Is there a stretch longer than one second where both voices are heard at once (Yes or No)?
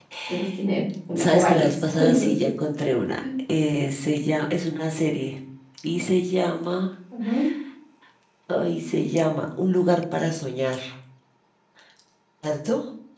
Yes